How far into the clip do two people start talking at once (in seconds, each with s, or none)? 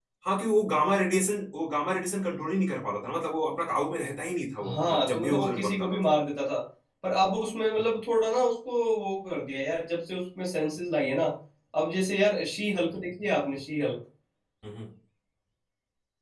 4.6 s